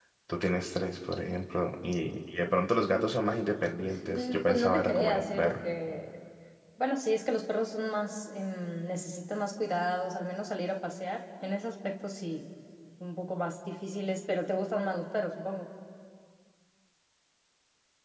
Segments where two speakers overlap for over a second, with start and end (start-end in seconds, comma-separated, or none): 4.1-5.6